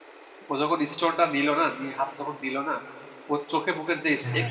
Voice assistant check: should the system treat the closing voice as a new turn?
No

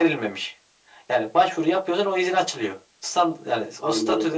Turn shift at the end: No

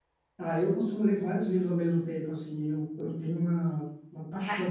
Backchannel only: Yes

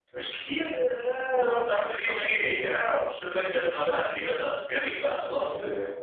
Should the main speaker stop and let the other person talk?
Yes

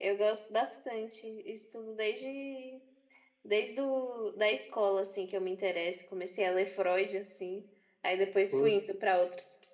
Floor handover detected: No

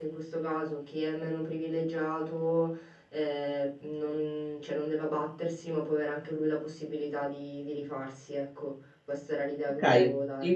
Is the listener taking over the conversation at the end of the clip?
Yes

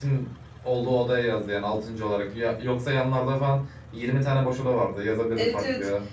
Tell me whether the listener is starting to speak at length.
Yes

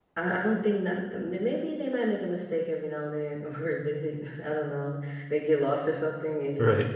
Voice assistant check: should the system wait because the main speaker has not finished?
Yes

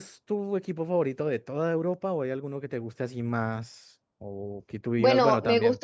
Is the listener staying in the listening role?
No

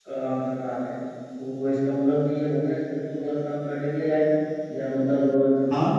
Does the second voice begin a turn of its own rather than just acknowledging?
No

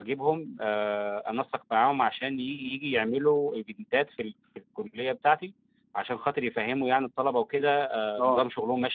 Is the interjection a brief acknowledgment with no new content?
Yes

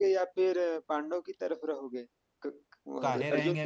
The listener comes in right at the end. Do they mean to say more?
Yes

